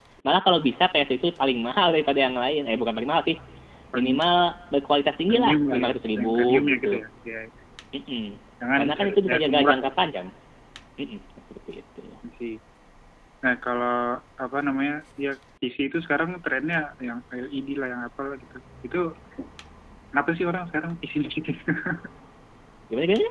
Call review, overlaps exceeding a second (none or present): present